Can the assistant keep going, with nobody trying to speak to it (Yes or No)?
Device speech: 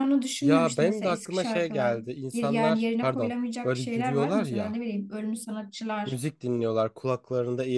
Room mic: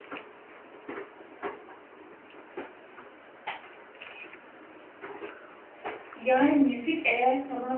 No